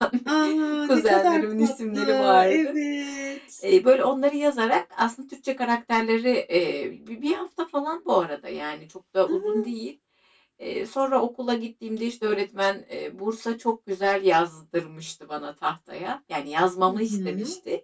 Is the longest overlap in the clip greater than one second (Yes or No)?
Yes